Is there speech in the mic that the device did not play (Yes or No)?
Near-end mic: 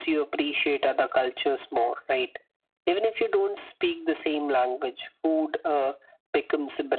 No